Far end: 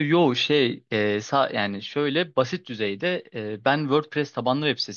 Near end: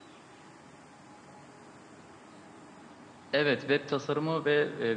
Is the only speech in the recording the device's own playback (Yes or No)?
No